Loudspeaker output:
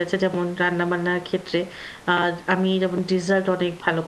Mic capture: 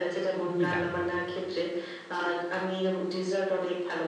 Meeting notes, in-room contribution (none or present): present